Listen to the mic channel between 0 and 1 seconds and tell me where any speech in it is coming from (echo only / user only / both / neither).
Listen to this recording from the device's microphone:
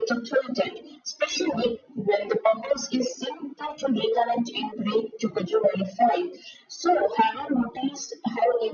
echo only